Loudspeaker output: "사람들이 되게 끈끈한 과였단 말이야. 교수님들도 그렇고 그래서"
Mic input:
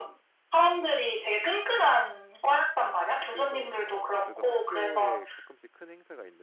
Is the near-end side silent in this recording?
No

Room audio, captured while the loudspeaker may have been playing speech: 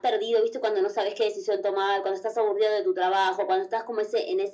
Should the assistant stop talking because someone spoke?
No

